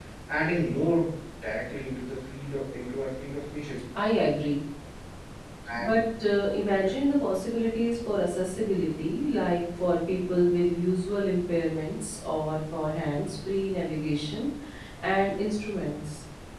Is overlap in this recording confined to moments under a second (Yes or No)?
Yes